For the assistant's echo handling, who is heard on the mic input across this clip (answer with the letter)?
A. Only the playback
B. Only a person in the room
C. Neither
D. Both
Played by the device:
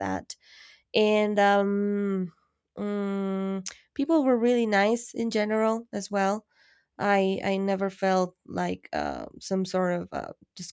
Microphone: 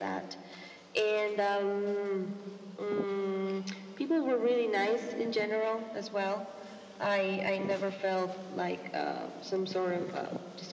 A